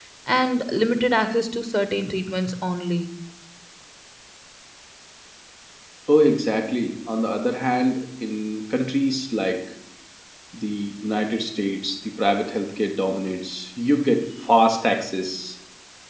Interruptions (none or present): none